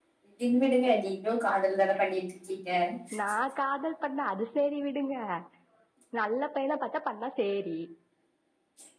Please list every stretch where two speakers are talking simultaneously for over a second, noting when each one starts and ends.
none

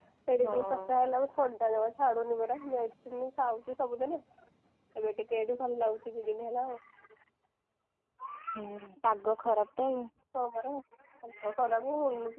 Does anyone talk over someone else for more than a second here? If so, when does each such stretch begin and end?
none

